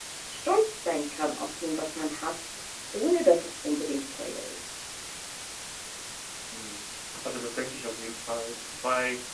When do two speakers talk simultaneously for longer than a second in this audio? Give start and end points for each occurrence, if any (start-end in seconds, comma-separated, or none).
none